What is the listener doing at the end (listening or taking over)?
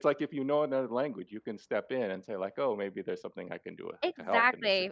taking over